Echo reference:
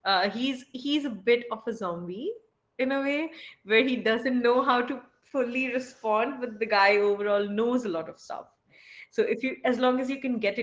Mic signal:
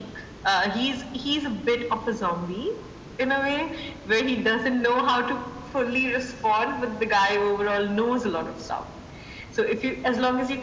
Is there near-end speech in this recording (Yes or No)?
No